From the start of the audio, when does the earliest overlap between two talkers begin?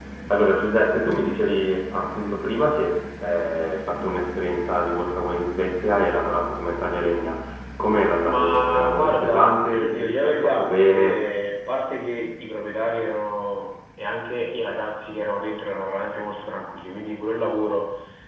8.2 s

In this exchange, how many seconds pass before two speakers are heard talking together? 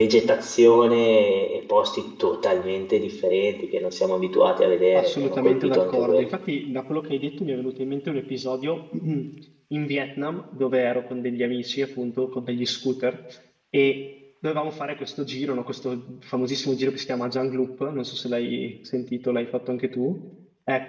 4.9 s

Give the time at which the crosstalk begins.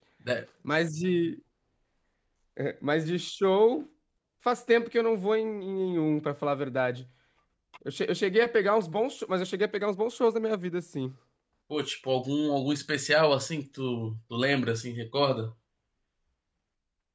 none

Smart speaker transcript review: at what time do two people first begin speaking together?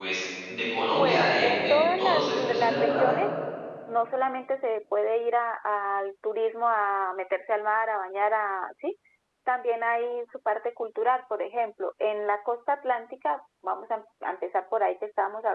0.9 s

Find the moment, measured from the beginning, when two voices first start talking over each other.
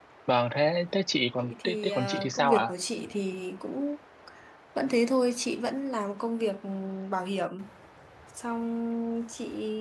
1.4 s

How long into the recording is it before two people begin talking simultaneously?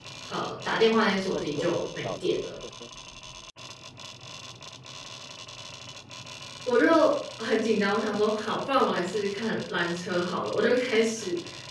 0.7 s

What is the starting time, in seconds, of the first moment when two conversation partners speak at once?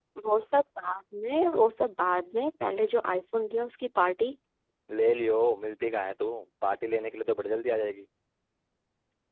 none

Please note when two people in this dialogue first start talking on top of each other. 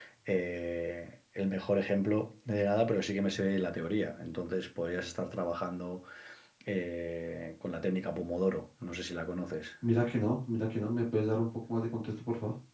none

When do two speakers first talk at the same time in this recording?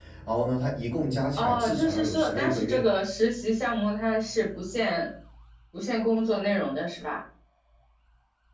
1.4 s

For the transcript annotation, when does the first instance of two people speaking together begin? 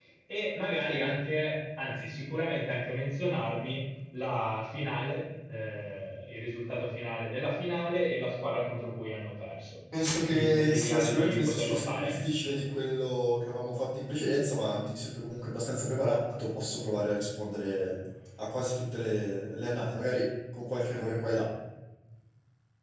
10.3 s

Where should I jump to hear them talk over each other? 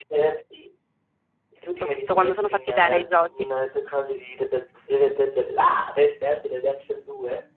1.8 s

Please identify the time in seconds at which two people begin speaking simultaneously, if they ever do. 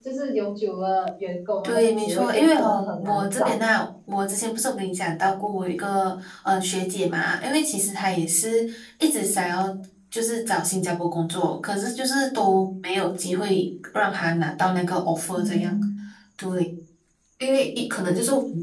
1.6 s

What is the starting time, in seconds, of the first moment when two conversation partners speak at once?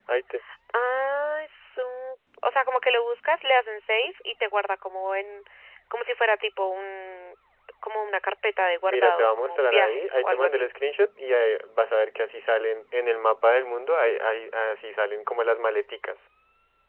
8.9 s

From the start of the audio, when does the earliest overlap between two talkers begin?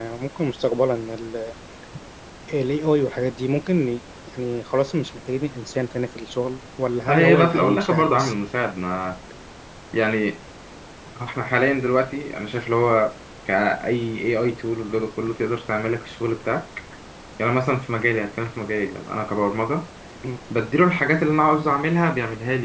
7.1 s

